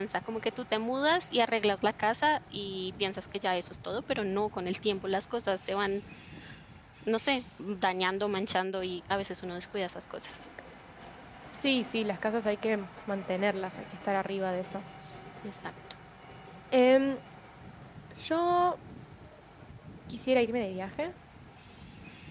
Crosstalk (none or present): none